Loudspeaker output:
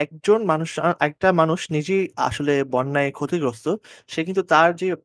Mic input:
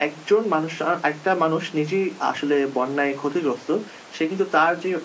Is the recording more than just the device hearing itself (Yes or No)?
No